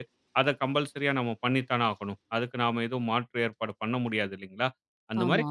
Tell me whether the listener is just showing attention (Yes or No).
Yes